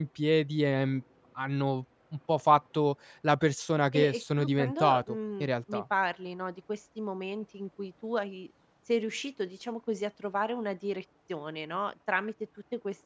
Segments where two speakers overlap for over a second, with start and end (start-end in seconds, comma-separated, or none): 4.0-5.8